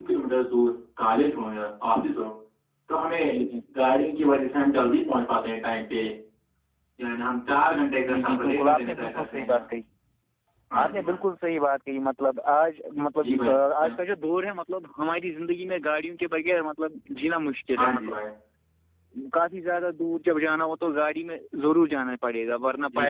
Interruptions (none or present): present